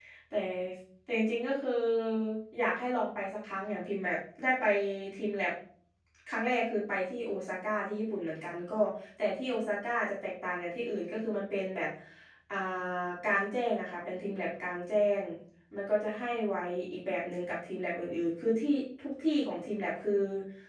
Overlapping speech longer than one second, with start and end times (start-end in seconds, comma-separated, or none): none